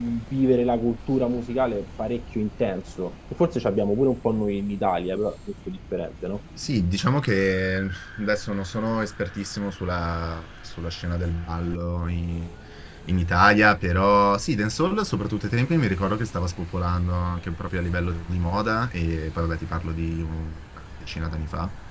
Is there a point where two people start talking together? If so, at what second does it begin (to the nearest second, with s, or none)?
none